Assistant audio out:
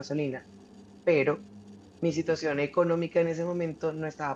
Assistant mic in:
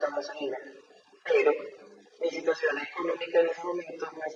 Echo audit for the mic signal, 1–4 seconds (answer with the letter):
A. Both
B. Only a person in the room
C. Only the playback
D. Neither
C